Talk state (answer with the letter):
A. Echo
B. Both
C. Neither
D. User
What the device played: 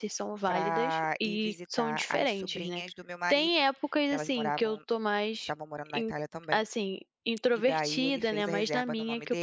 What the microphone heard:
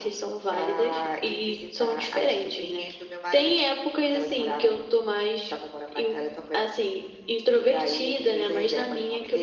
A